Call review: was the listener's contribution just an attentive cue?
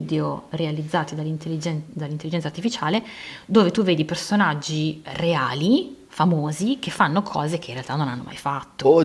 No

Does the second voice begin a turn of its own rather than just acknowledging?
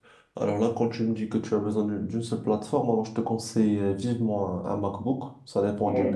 No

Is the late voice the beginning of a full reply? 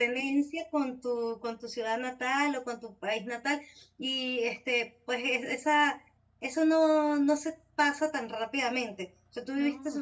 No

